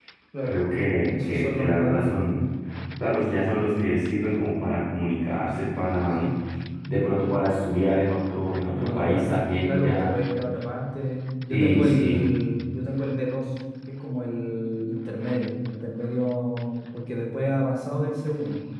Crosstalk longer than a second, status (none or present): present